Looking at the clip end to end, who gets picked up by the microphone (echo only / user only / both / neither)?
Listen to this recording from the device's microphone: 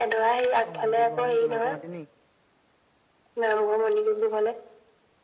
both